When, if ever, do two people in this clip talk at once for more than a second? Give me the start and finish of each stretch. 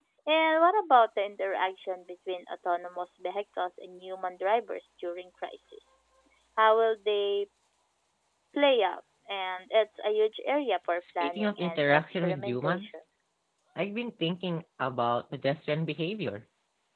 11.0-12.9

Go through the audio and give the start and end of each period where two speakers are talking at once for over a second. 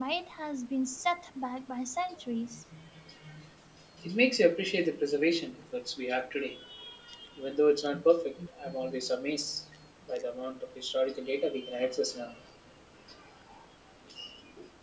none

